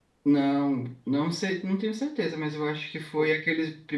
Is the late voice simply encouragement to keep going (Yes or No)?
Yes